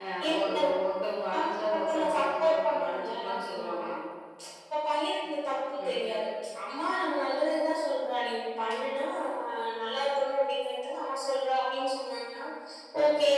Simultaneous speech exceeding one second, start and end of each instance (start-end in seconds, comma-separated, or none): 1.7-3.7